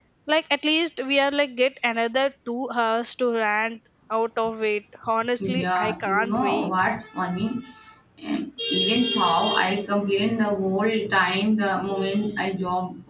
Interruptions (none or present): present